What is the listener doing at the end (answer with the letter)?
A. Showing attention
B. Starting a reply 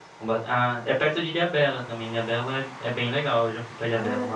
B